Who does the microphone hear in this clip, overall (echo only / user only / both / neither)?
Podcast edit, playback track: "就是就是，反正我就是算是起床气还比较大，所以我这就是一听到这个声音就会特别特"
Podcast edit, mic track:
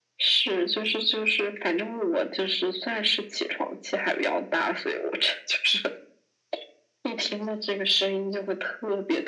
echo only